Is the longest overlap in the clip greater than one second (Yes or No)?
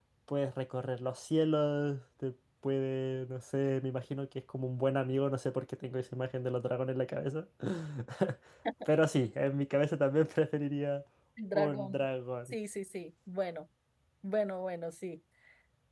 No